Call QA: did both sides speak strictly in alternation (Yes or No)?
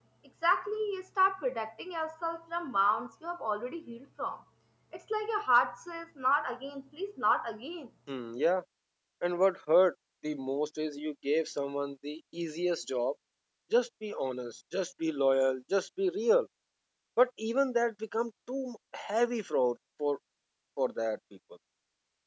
Yes